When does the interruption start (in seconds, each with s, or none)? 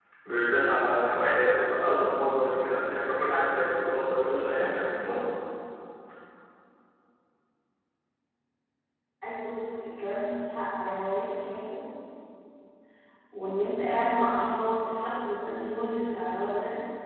none